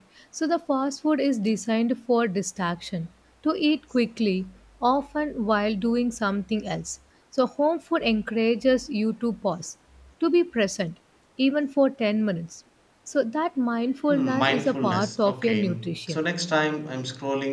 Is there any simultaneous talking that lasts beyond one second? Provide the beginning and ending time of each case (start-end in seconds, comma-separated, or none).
14.1-16.2